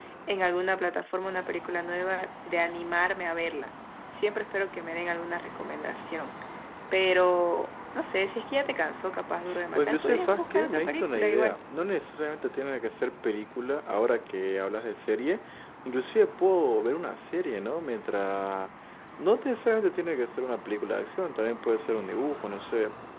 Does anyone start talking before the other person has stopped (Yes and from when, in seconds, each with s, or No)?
Yes, from 9.8 s